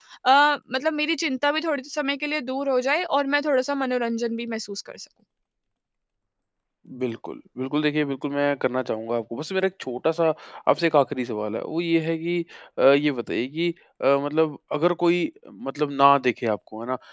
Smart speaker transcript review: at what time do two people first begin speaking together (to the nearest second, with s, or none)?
none